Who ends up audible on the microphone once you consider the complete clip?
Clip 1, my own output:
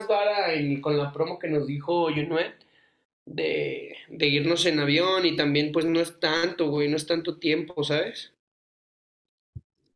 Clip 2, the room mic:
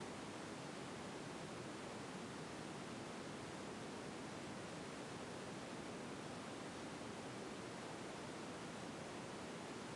neither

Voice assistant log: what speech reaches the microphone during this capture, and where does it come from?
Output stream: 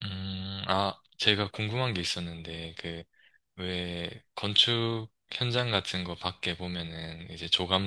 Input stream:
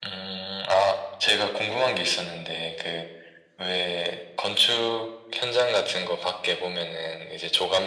echo only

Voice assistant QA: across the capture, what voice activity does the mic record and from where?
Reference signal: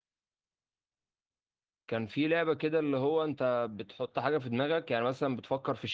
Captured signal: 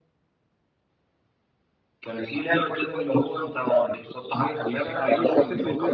both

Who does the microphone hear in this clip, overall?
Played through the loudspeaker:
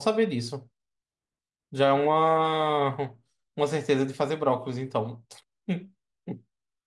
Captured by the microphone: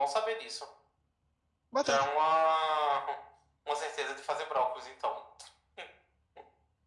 both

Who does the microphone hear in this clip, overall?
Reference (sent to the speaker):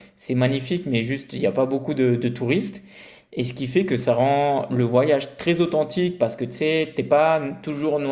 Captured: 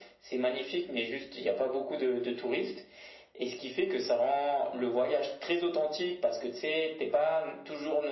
echo only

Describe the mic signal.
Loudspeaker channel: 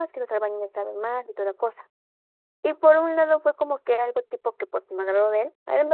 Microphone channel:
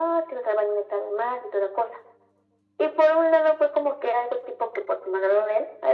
echo only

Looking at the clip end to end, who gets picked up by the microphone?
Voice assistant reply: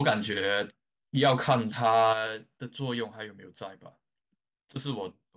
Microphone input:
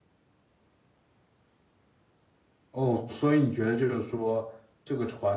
user only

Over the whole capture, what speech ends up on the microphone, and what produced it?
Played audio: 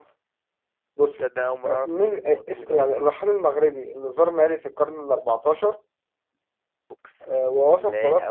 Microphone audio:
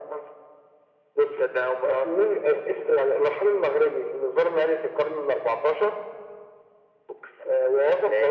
echo only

